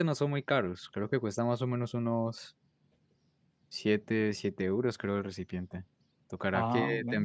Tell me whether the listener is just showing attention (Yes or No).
Yes